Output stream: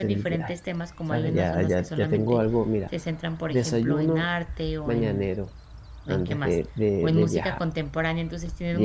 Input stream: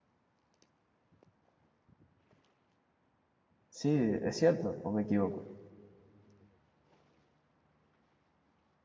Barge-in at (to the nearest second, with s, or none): 4 s